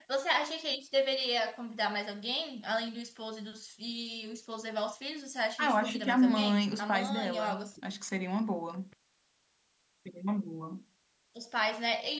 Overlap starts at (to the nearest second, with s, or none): 6 s